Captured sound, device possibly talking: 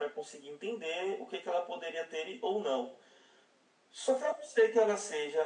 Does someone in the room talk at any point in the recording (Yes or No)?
No